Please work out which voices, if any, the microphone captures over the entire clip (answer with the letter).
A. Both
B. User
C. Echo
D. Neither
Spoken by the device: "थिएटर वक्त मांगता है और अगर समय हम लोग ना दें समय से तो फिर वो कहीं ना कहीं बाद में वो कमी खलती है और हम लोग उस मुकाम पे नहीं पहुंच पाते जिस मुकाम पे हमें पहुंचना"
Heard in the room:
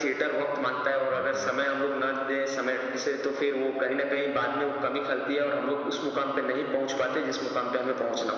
A